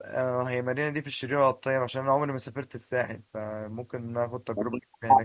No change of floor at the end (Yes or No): No